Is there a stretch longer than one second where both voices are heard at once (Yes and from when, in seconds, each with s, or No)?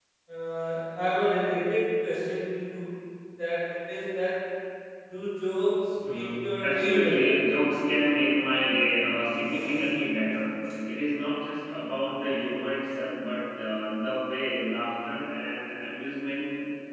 Yes, from 6.0 s